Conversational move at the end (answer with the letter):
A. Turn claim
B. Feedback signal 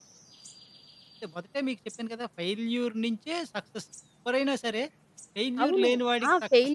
A